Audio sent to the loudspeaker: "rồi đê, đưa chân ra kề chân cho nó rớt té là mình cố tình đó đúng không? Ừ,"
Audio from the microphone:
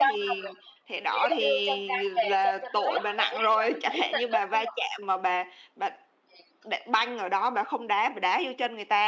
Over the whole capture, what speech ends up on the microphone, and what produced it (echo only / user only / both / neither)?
both